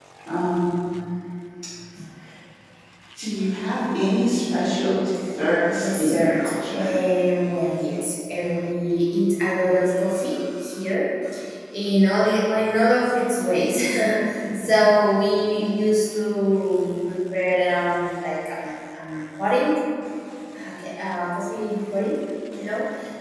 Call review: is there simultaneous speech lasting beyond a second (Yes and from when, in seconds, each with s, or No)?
Yes, from 5.7 s